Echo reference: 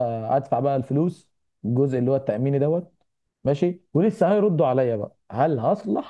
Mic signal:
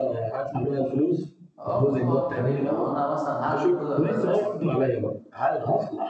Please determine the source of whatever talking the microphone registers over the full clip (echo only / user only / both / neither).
both